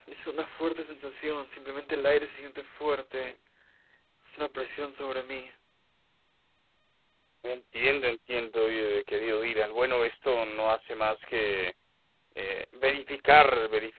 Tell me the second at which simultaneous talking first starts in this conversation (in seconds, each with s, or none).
none